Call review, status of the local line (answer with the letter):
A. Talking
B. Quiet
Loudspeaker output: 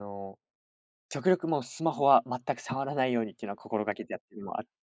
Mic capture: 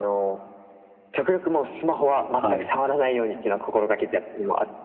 A